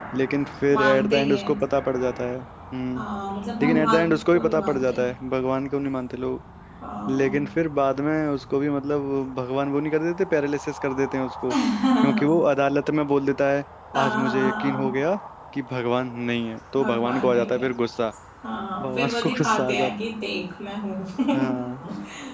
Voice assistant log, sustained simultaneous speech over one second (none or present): present